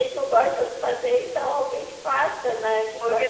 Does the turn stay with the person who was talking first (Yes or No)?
No